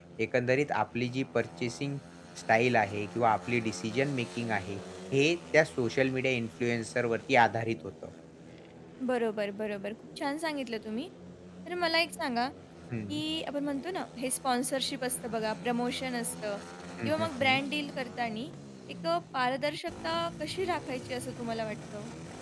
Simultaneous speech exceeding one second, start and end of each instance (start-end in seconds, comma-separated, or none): none